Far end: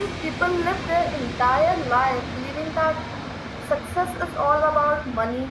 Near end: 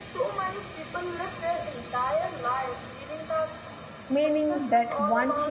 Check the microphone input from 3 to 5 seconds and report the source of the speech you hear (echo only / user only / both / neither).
both